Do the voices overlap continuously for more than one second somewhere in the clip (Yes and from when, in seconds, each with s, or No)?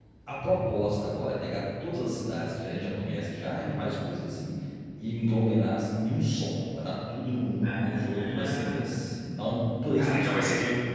Yes, from 7.6 s